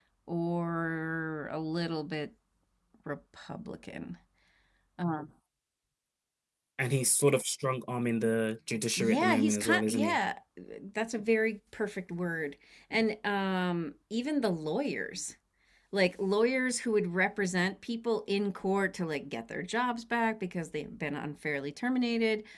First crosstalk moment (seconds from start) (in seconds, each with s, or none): 9.0 s